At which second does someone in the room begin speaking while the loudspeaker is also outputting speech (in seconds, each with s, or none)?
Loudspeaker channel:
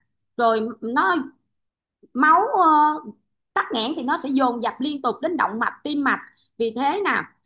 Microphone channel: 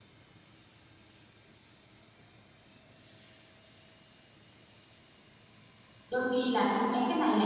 6.1 s